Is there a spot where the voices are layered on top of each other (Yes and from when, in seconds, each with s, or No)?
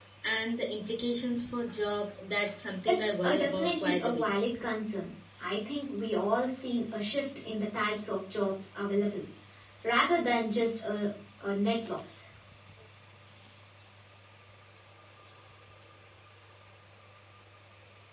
Yes, from 3.0 s